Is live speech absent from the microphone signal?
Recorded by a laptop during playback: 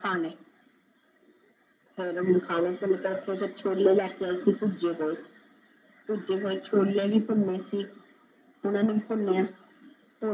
Yes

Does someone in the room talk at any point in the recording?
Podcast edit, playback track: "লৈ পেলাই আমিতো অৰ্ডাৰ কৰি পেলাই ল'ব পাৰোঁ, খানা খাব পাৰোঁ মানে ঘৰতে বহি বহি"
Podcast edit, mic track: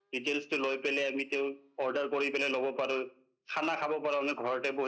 No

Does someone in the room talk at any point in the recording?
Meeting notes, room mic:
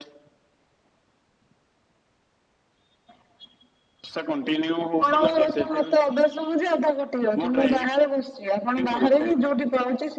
No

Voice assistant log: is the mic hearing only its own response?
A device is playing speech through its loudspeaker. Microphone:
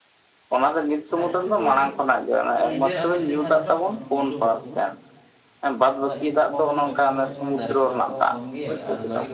No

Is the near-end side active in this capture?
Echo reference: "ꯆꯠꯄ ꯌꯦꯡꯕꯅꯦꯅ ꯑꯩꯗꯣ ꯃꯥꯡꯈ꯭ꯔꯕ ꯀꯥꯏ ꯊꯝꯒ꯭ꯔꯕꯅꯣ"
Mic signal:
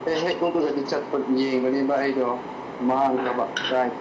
No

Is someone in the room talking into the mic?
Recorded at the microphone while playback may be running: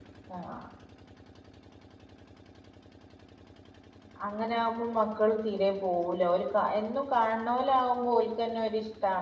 Yes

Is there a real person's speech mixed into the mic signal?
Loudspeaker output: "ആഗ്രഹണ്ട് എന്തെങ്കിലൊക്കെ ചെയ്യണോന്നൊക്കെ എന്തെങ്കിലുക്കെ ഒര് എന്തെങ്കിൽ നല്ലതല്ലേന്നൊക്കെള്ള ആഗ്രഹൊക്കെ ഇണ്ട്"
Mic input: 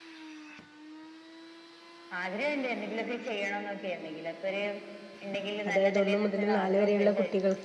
Yes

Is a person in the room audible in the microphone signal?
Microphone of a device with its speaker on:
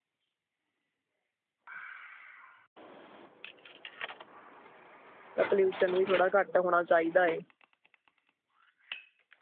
Yes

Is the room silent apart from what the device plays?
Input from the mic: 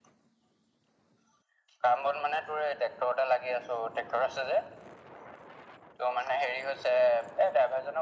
Yes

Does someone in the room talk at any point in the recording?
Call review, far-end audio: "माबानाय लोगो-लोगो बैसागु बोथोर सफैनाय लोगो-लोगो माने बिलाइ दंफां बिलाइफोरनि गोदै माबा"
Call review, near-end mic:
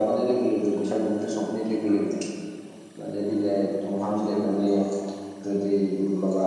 No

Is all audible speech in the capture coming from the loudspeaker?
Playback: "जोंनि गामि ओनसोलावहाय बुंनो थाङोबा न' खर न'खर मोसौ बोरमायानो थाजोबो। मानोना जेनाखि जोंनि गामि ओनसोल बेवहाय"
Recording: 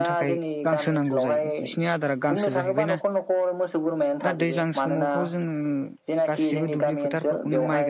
No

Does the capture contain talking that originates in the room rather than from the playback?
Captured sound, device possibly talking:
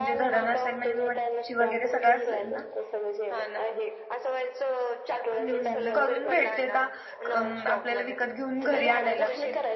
Yes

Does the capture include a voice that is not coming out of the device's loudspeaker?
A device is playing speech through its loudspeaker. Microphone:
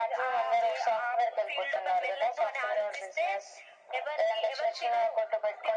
No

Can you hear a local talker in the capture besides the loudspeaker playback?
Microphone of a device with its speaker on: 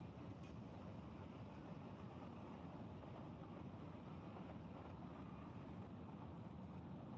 No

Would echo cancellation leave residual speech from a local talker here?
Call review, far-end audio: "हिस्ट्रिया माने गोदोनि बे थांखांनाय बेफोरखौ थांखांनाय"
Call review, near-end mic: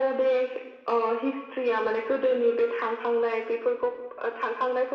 No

